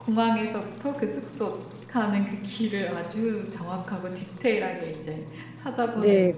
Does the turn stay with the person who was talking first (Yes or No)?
No